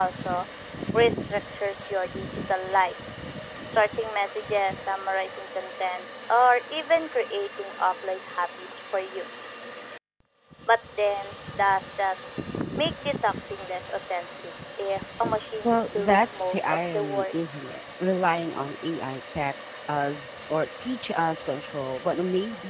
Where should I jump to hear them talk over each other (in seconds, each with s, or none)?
15.6 s